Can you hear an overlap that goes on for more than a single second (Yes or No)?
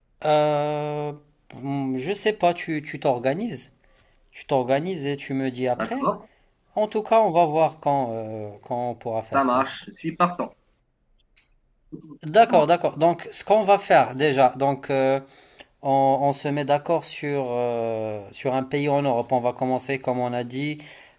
No